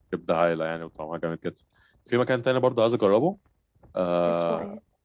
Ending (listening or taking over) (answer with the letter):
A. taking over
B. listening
B